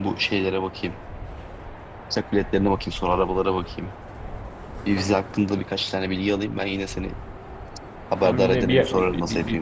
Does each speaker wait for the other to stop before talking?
No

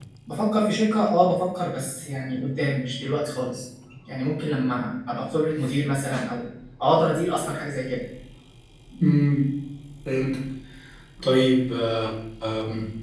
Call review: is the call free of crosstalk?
Yes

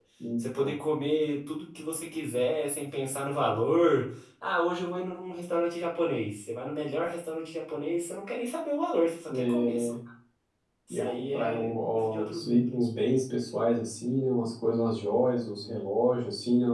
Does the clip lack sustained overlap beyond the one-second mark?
No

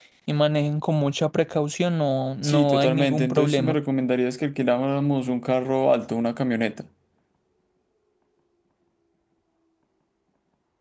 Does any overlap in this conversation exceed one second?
Yes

